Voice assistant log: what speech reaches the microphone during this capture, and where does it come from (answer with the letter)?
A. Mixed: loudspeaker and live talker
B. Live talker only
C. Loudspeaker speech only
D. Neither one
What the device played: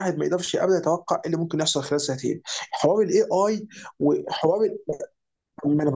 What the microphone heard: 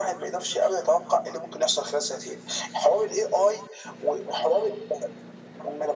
C